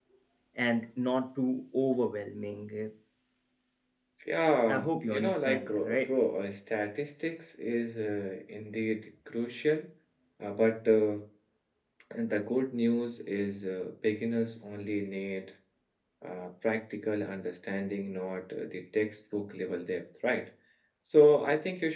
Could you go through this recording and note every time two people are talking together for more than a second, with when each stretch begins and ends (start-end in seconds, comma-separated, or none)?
4.7-6.1